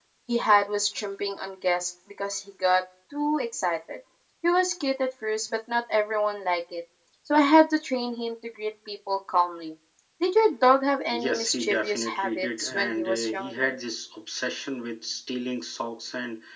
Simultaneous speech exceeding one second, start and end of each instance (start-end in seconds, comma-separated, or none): 11.1-13.8